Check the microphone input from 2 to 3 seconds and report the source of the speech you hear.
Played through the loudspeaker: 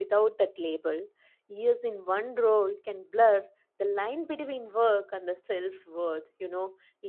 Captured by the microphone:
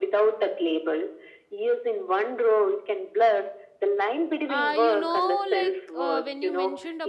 echo only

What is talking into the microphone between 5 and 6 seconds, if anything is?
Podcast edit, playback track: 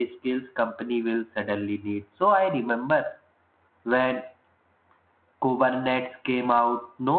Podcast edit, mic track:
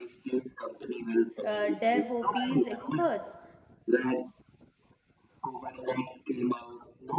echo only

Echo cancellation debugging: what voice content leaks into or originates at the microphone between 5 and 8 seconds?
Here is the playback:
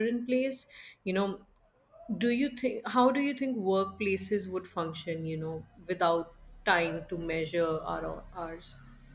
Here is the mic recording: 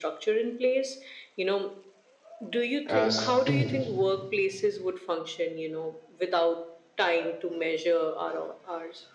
echo only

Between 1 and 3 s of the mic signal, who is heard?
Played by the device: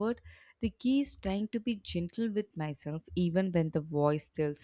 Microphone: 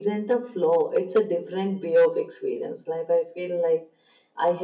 user only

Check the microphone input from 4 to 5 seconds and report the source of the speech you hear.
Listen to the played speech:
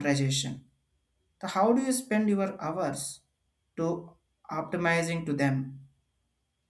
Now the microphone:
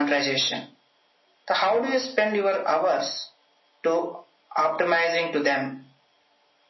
echo only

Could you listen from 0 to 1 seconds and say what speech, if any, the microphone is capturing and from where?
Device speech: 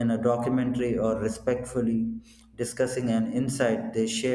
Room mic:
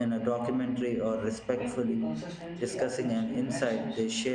echo only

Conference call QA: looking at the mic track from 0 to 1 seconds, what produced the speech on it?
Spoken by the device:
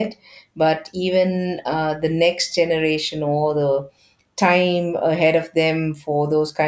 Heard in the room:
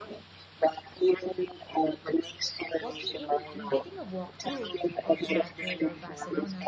echo only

